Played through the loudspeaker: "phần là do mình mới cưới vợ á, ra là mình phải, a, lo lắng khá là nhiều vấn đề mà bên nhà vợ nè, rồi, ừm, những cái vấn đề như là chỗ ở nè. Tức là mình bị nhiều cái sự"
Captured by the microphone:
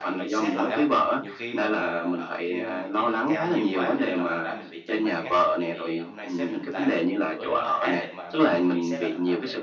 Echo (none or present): present